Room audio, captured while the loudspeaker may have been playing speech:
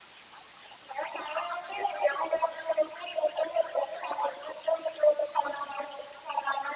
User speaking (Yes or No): No